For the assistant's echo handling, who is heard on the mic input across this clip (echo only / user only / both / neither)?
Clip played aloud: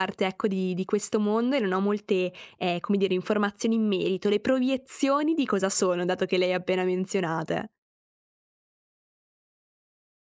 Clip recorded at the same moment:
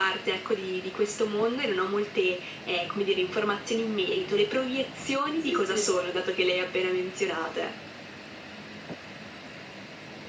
both